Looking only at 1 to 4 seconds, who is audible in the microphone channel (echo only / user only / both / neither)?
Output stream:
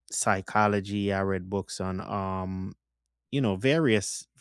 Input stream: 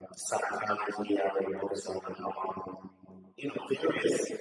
echo only